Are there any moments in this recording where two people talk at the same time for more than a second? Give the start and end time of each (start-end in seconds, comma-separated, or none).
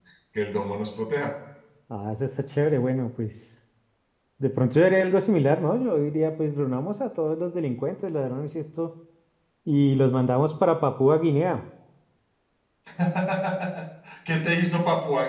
none